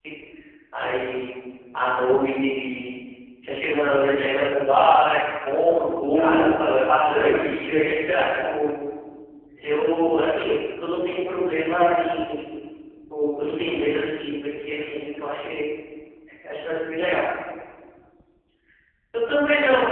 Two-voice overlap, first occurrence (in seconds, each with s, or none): 6.2 s